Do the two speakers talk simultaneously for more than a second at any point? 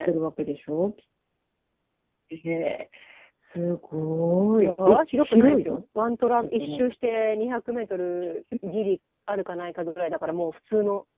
Yes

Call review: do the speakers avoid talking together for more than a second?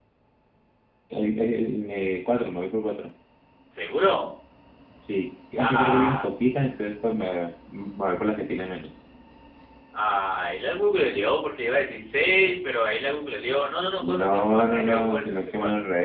No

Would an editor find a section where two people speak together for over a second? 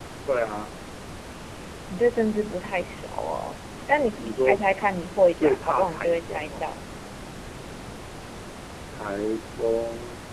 Yes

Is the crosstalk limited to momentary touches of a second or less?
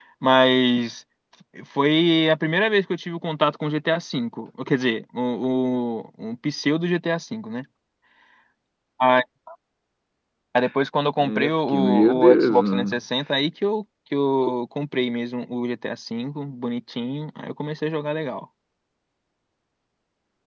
No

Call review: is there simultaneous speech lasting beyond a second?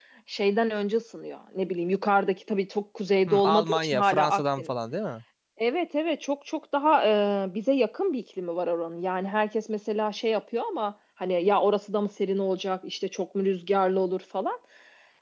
Yes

